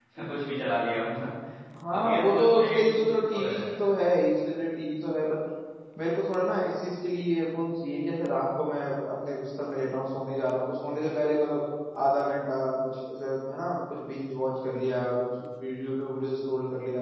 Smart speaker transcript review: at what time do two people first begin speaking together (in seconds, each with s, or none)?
1.9 s